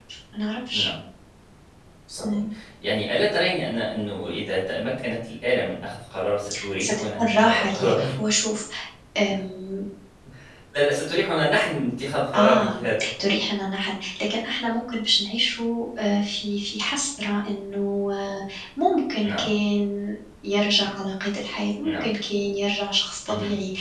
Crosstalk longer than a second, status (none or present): present